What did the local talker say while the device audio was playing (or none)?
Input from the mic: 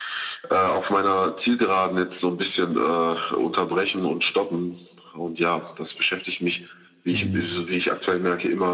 mhm,